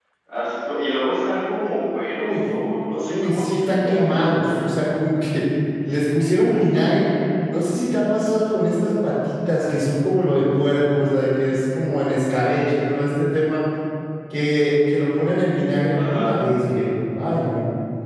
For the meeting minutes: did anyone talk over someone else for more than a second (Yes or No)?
Yes